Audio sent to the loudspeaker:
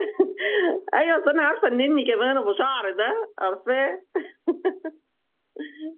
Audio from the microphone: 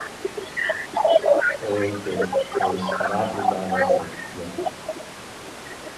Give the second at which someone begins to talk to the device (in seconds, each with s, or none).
1.6 s